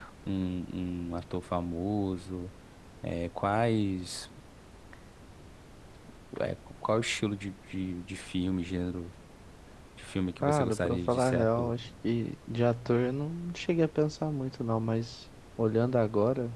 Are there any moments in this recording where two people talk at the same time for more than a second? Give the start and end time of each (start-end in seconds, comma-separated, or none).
10.4-11.7